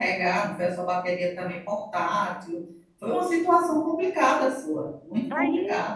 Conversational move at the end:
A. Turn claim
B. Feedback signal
A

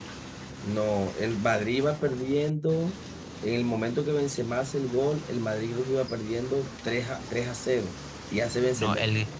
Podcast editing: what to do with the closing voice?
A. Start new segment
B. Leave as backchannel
A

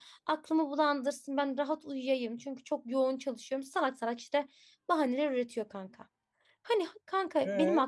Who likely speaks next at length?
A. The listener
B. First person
B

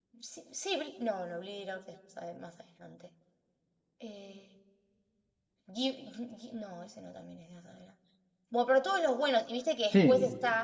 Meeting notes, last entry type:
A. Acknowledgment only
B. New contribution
A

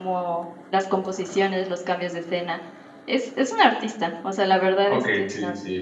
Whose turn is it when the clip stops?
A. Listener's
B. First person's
A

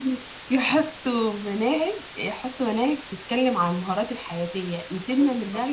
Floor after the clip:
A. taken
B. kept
B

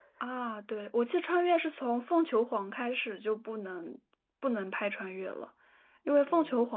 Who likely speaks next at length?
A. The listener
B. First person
B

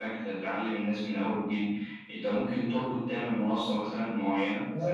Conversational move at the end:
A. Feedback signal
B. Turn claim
B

